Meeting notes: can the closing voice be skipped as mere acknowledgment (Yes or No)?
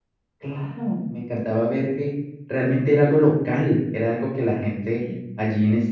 Yes